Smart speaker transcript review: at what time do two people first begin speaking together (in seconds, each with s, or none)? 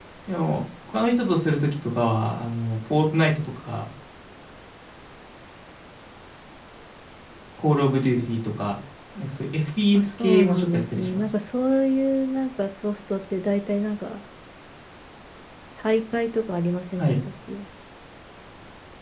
9.9 s